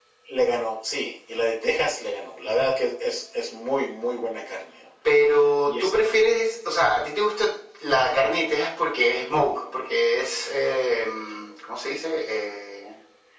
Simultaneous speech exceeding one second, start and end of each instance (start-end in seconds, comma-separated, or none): none